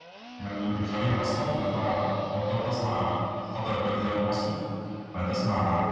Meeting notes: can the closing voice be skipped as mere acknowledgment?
Yes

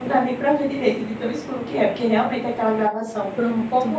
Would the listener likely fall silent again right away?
Yes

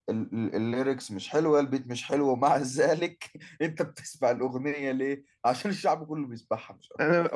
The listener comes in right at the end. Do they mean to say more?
Yes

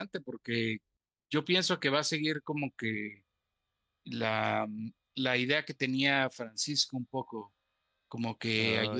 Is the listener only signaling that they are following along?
Yes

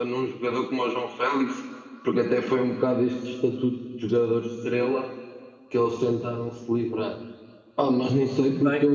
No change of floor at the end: Yes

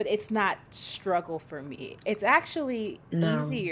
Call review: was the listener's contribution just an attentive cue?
Yes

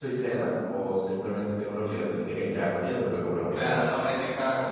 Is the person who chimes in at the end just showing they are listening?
No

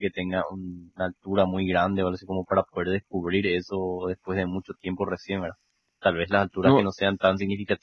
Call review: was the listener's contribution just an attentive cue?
Yes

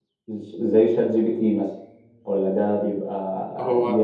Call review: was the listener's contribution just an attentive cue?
Yes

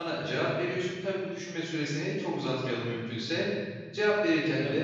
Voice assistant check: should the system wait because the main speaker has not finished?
Yes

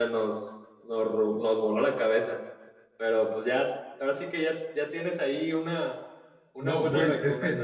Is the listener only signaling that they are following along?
No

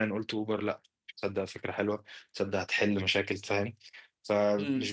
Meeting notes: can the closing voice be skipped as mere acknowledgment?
Yes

